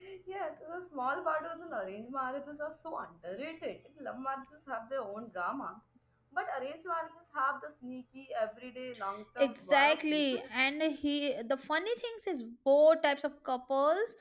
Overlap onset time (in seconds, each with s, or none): 9.4 s